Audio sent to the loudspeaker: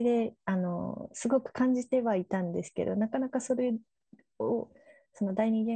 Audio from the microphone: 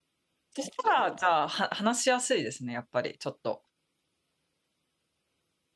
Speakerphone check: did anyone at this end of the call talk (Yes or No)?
Yes